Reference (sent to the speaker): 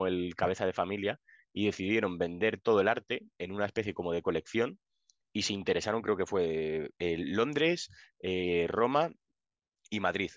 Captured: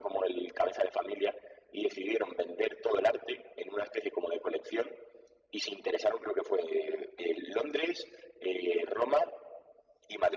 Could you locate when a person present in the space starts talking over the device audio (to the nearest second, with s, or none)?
none